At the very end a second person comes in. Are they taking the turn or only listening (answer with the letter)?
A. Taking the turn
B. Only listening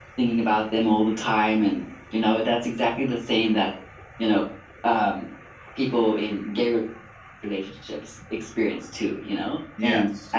B